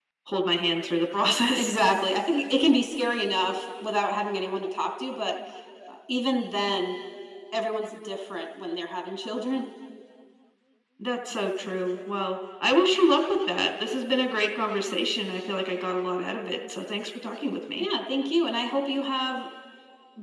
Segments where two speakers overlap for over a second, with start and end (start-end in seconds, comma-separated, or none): none